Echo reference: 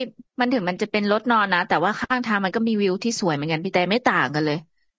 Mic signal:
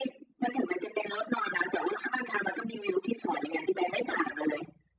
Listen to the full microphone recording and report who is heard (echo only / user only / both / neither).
echo only